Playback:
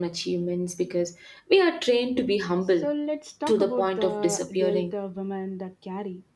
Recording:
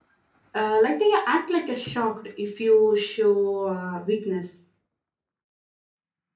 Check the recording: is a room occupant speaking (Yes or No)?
Yes